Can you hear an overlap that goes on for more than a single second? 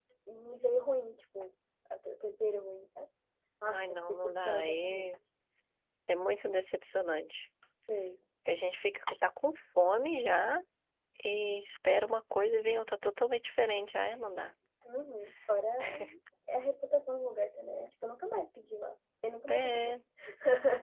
Yes, from 3.6 s

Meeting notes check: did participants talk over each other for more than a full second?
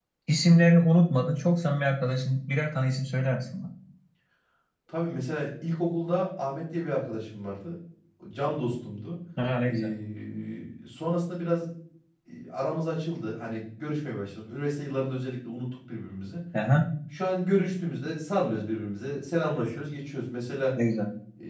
No

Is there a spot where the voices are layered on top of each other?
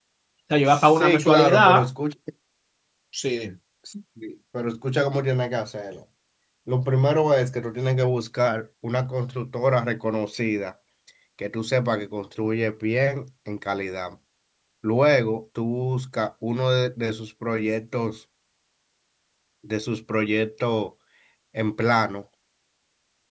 Yes, from 0.7 s

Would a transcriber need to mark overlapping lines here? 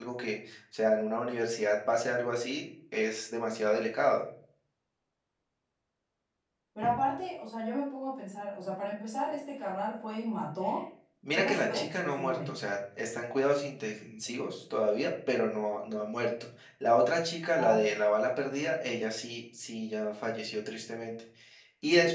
Yes, from 11.3 s

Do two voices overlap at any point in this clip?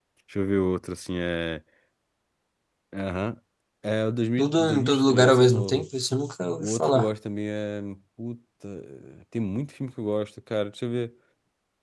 Yes, from 4.4 s

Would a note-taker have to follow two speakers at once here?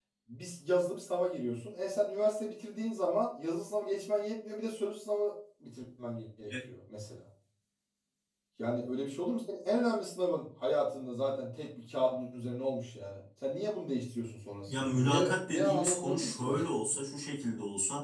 Yes, from 14.7 s

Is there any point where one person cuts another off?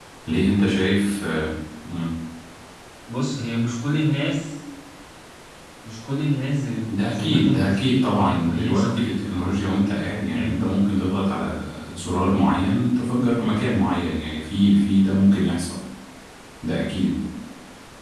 Yes, from 7.0 s

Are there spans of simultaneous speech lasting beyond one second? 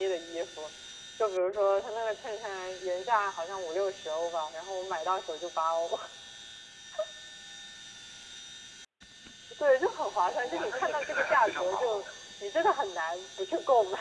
Yes, from 10.2 s

